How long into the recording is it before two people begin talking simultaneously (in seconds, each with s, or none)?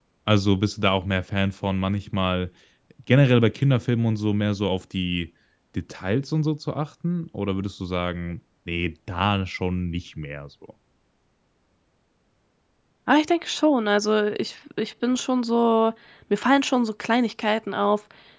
none